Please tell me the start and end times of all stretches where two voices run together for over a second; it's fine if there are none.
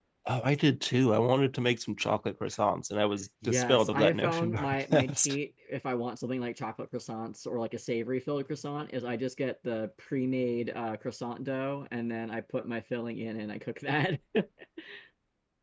3.4-5.4

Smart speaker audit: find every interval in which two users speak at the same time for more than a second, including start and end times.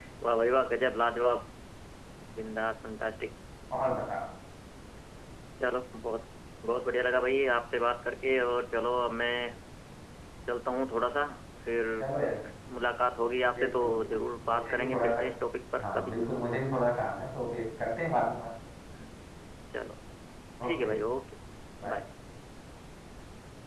13.5-15.2

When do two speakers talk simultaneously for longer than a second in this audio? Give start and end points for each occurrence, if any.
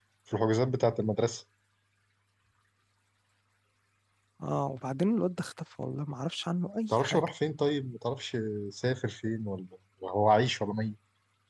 none

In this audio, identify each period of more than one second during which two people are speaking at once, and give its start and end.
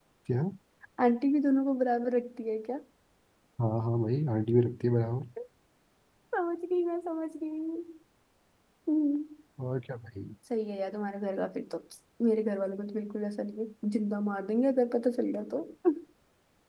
none

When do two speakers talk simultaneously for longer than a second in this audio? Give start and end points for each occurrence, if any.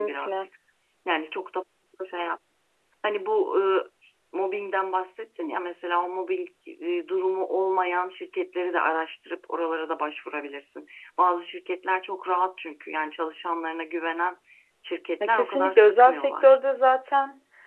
15.2-16.6

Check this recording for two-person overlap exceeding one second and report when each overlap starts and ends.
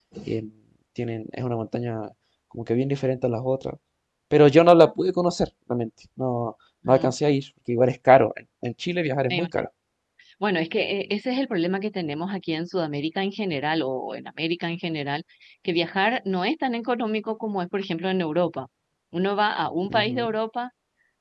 none

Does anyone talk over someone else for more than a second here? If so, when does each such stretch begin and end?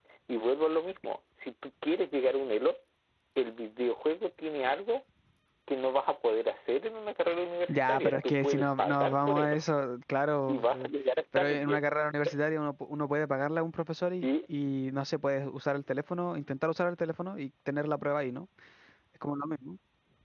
7.7-9.6

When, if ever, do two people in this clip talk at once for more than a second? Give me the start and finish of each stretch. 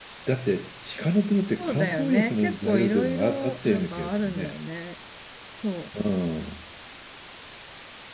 1.6-4.5

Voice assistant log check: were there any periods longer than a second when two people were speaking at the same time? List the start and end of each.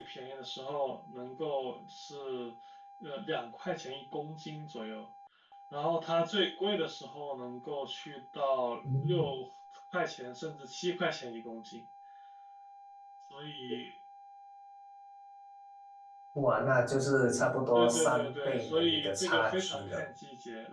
17.7-20.1

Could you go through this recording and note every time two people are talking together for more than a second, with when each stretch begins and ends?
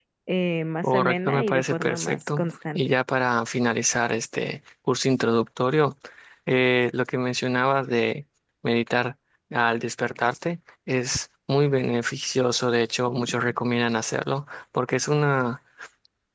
0.8-2.9

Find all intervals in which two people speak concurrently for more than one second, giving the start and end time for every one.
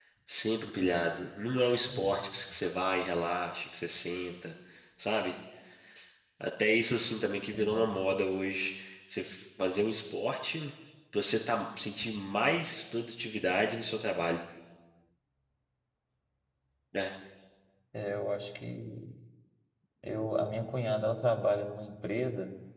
none

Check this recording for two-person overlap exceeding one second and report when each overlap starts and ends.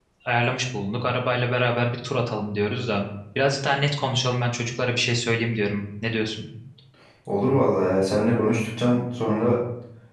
none

